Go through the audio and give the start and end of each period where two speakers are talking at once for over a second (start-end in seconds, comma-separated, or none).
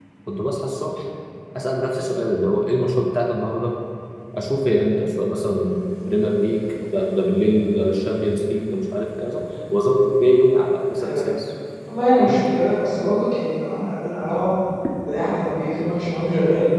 none